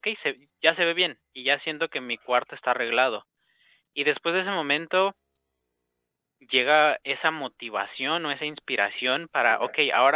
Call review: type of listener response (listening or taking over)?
listening